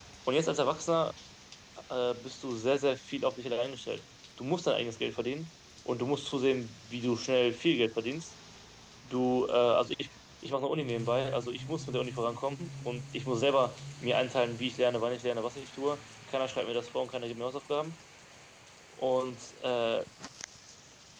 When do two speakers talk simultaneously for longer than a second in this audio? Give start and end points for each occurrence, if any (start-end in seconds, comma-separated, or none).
none